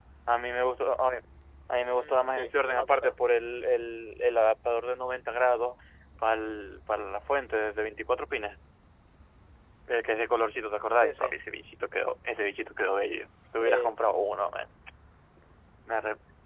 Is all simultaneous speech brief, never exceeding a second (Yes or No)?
No